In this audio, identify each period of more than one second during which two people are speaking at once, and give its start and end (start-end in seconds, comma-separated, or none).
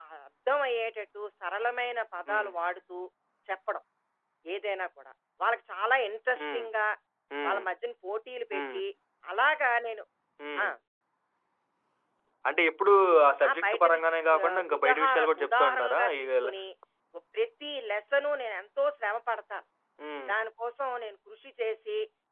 14.5-16.5